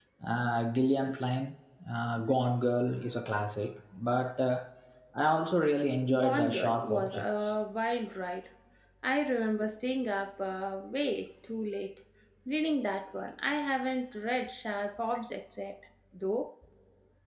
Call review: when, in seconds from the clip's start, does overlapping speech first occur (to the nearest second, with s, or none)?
6 s